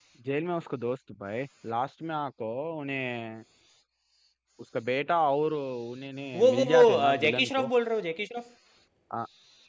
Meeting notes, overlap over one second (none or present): present